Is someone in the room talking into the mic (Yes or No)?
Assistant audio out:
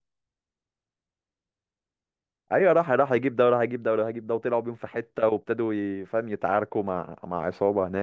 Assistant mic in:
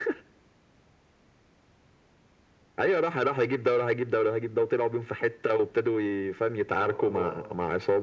Yes